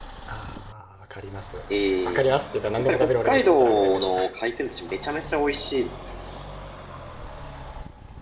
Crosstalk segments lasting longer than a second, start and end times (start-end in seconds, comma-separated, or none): 2.8-4.1